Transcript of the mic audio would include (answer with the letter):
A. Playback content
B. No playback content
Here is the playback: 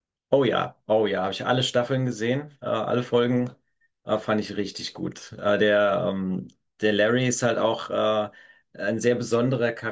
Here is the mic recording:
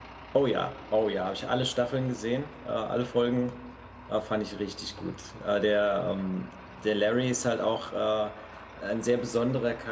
A